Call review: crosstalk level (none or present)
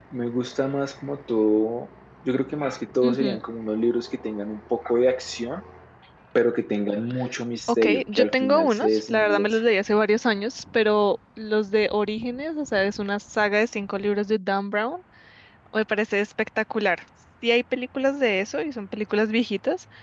present